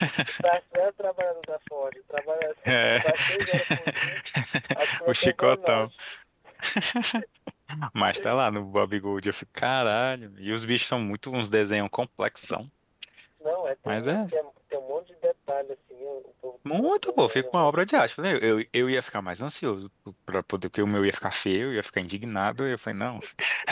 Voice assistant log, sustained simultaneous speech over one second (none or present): present